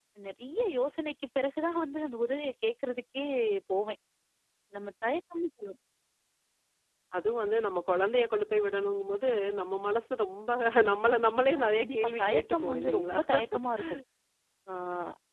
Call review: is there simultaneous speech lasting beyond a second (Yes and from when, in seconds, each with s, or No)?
Yes, from 11.5 s